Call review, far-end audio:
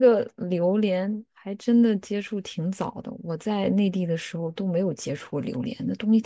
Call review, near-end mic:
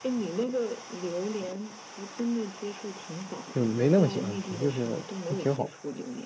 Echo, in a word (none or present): present